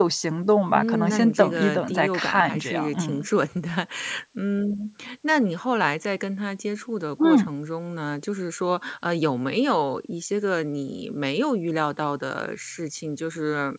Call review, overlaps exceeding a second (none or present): present